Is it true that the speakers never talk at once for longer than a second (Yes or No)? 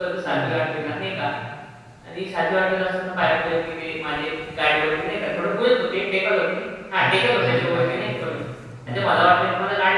No